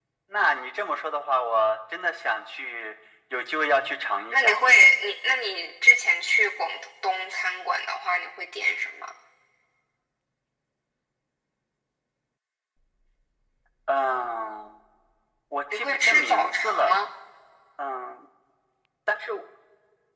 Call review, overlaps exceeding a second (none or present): present